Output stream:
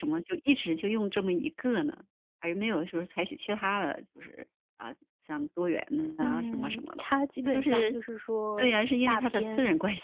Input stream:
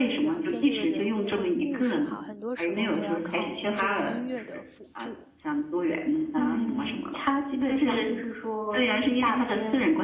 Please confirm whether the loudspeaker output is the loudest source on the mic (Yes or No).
Yes